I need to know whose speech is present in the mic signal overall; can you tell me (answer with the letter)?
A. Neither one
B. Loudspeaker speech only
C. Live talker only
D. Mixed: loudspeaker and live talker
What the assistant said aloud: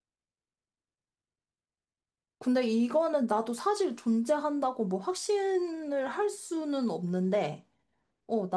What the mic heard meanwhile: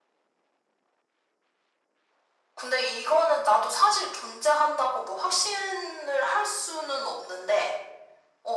B